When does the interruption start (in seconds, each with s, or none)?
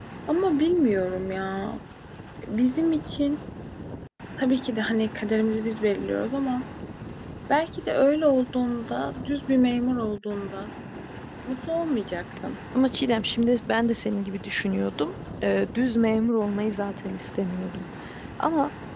none